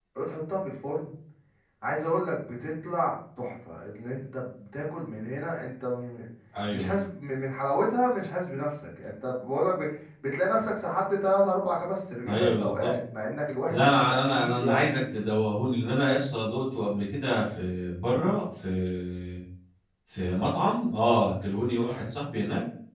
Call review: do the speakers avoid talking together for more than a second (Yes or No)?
No